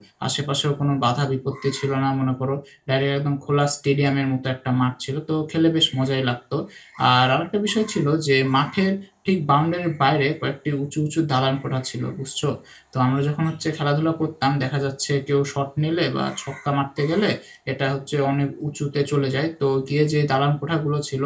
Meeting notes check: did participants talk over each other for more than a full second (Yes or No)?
No